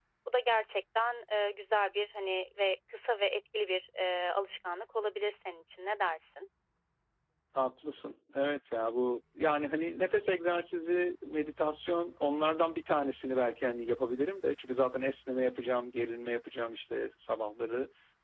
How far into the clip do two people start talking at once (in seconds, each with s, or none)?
none